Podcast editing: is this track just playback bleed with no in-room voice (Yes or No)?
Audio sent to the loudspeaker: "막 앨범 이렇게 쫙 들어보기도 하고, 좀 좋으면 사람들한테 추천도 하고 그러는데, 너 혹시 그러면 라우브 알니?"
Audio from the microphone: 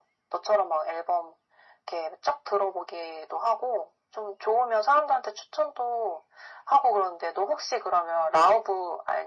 Yes